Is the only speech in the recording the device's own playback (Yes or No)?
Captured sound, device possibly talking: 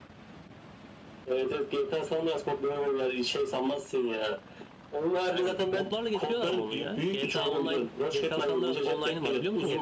No